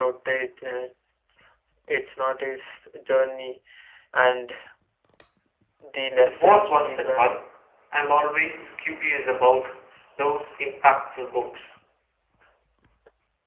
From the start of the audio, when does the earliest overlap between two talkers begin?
6.2 s

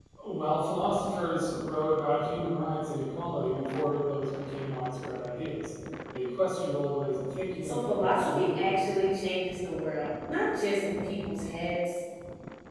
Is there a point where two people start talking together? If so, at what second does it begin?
7.6 s

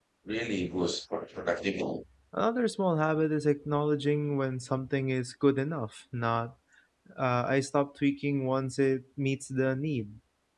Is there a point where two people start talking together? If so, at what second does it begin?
none

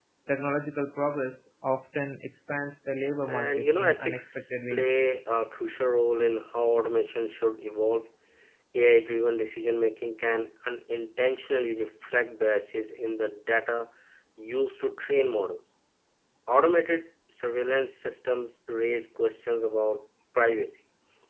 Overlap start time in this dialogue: 3.2 s

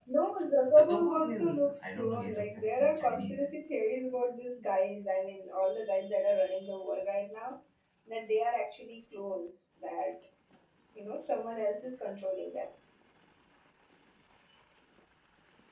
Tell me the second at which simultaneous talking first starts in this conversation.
0.7 s

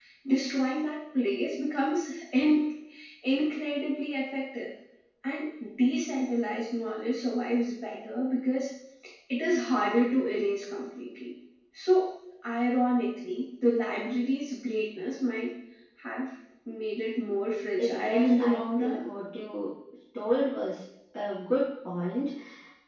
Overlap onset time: 17.8 s

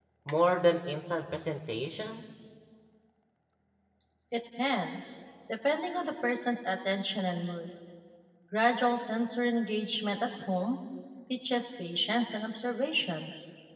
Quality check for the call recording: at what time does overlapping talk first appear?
none

